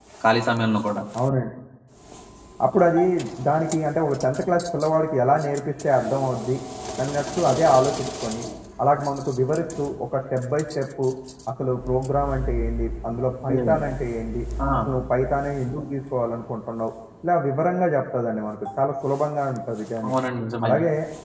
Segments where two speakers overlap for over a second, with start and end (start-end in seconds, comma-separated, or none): none